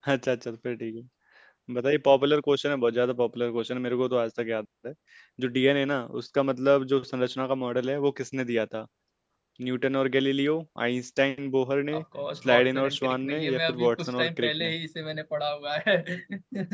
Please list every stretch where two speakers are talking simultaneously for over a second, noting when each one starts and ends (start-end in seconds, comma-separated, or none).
12.4-14.5